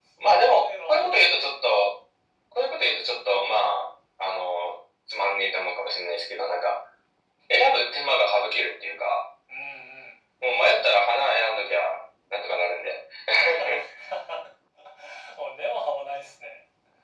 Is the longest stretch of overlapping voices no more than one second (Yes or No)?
No